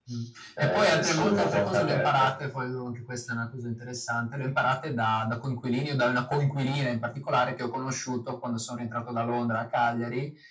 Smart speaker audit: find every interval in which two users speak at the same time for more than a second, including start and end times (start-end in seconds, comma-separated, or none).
0.6-2.3